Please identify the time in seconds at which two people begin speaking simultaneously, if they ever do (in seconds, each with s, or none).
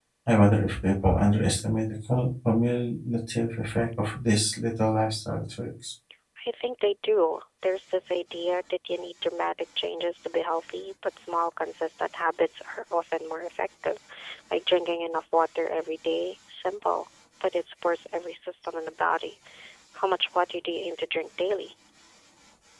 none